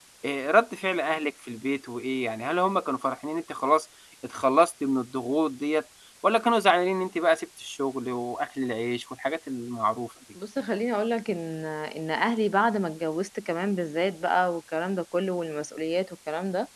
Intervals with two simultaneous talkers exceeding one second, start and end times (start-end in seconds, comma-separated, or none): none